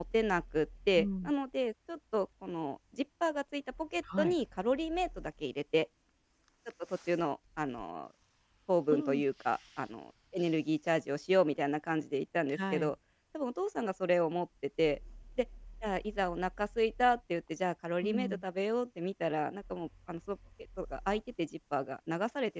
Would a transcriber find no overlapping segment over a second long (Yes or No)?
Yes